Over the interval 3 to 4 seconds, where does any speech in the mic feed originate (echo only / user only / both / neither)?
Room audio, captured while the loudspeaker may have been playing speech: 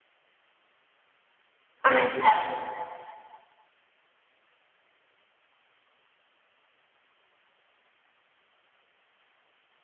neither